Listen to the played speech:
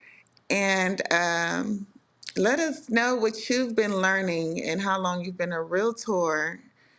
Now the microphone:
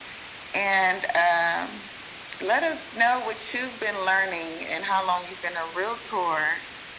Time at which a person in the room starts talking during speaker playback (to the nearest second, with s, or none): none